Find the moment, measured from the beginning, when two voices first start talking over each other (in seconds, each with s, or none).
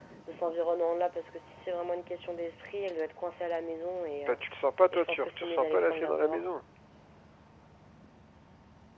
4.9 s